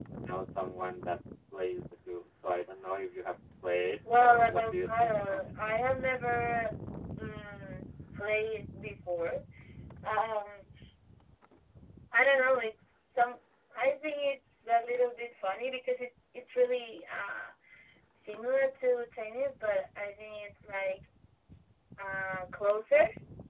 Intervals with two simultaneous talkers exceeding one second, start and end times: 4.2-5.4

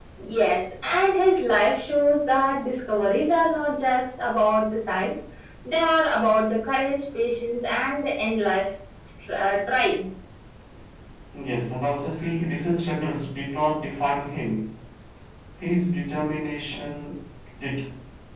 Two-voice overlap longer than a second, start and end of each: none

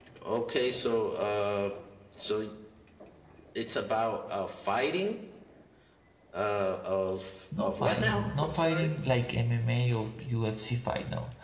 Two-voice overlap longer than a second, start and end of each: 7.6-8.9

